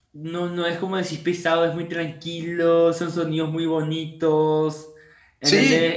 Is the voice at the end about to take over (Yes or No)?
No